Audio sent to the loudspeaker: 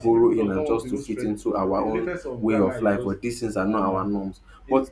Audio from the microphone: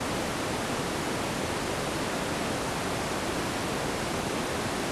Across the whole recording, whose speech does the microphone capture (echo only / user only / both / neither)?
neither